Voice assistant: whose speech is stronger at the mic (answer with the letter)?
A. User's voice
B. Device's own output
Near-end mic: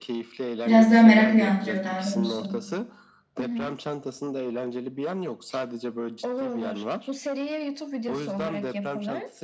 A